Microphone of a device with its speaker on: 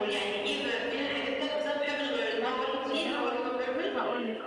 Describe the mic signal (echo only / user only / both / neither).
both